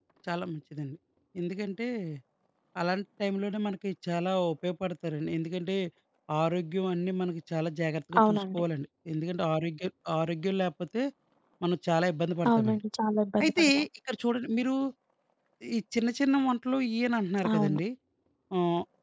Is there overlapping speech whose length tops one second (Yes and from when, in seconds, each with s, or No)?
No